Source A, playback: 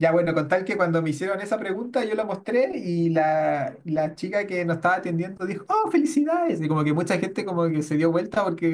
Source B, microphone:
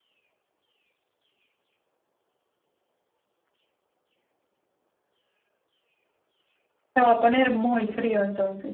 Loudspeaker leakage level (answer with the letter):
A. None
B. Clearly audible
A